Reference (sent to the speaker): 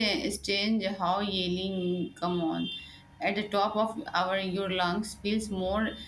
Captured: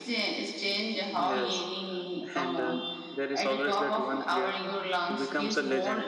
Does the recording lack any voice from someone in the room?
No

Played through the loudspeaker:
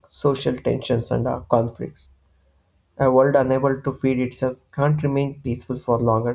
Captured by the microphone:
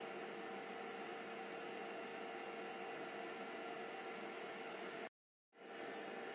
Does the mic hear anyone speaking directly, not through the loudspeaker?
No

